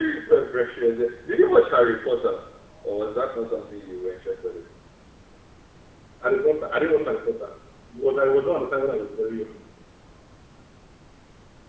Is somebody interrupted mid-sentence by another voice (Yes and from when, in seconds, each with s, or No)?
No